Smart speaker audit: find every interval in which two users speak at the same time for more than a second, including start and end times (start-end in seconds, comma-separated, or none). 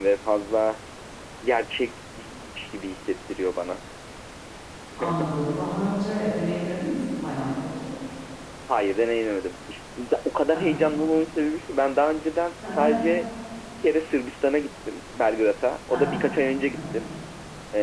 none